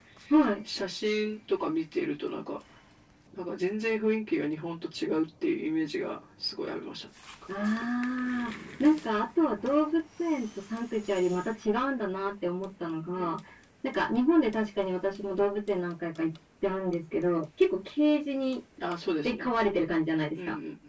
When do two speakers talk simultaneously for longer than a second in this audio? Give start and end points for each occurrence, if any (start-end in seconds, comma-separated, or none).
none